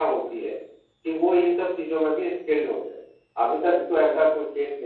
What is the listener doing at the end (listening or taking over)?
listening